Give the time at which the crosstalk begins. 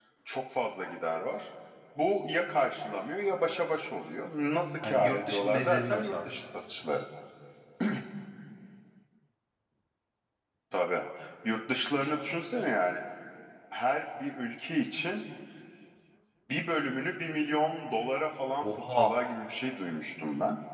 4.8 s

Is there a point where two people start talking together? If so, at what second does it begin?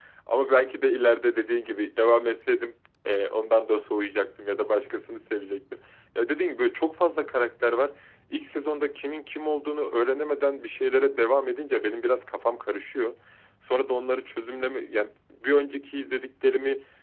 none

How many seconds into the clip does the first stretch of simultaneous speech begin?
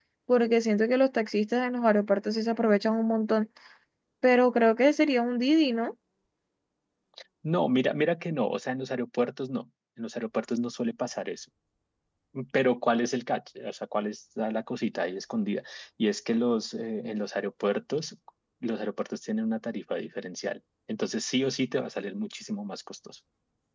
none

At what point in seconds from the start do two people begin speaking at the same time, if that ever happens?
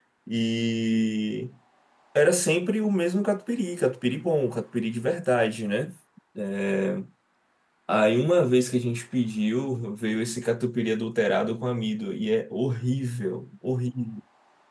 none

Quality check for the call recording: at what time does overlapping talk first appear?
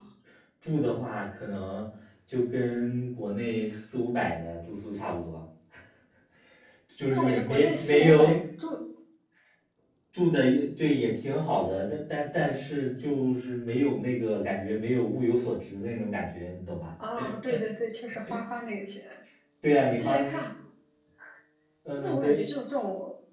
7.1 s

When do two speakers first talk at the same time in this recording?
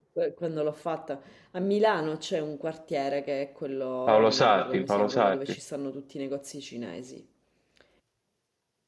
4.1 s

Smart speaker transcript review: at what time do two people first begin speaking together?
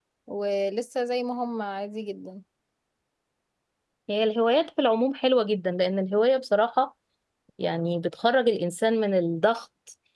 none

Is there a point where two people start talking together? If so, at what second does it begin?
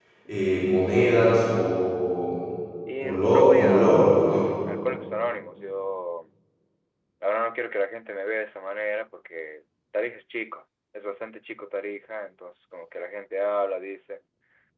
3.0 s

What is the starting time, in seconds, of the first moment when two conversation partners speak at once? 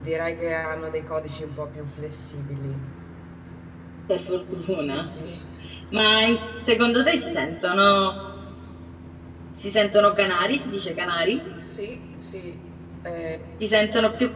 none

